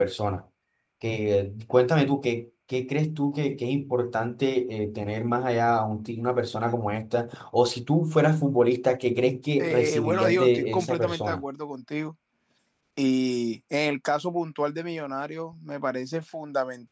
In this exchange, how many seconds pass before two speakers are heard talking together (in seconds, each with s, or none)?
9.6 s